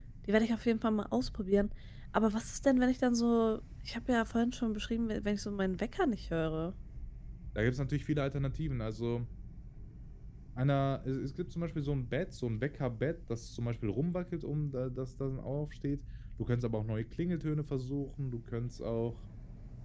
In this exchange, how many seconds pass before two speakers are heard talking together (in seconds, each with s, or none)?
none